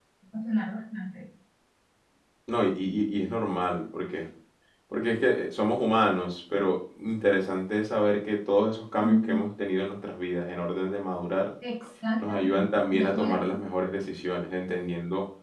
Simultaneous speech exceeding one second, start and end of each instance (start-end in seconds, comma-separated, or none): 12.2-13.4